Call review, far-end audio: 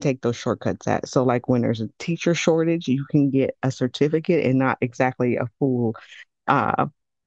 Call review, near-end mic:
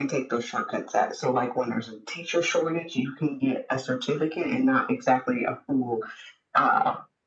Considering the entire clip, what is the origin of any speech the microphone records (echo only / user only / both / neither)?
echo only